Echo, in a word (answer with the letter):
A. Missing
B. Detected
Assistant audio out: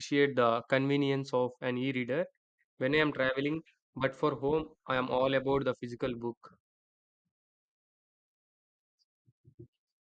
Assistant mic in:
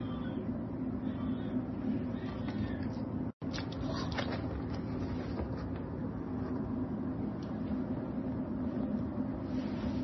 A